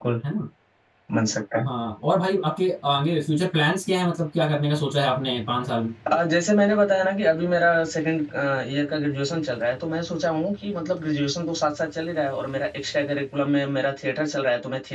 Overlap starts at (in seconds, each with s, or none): none